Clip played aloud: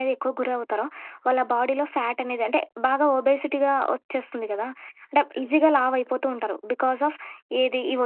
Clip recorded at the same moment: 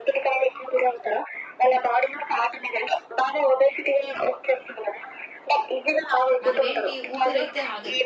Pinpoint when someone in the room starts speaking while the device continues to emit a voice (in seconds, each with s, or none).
6.5 s